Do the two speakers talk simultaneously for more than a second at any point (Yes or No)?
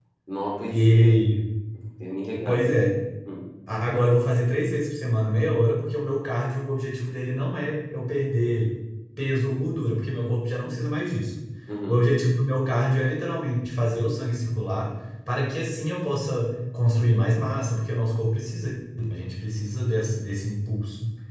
No